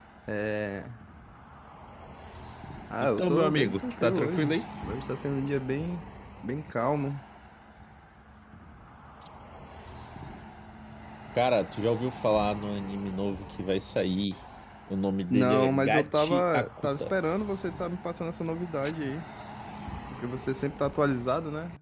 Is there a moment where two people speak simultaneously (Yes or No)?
Yes